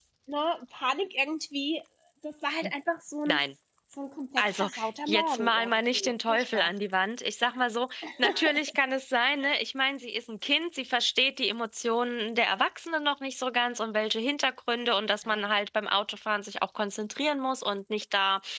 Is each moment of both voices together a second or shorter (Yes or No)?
No